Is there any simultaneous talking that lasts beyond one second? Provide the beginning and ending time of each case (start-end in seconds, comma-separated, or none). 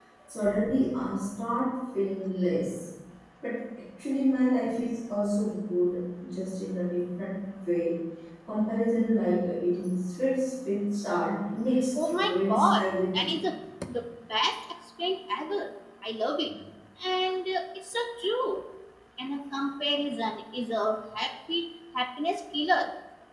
12.0-13.4